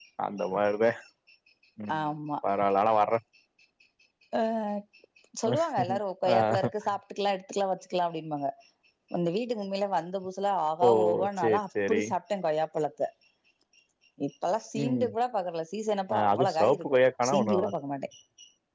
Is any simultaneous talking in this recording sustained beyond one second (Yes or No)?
Yes